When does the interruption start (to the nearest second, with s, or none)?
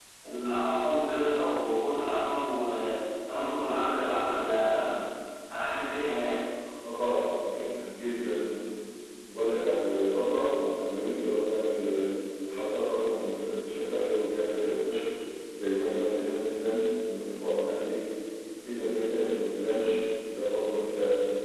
none